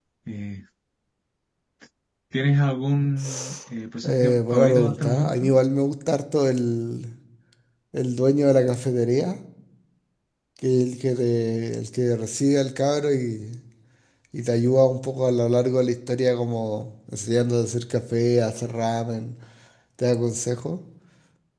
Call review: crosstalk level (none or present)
present